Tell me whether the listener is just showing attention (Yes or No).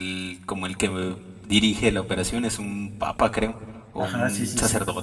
No